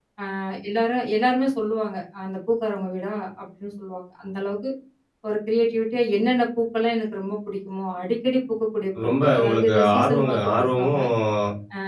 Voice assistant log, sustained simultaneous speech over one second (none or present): present